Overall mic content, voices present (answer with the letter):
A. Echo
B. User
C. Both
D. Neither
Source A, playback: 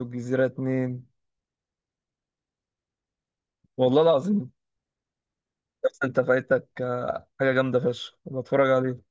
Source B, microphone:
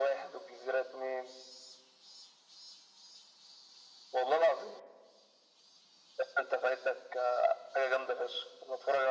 A